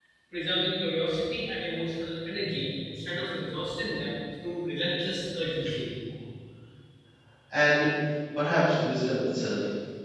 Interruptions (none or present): none